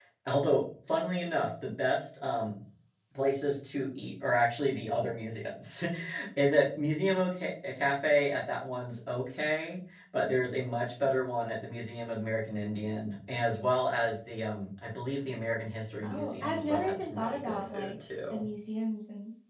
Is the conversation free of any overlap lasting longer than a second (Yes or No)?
No